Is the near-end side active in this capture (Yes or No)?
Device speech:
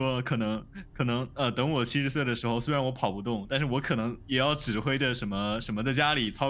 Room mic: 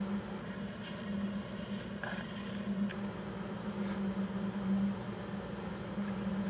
No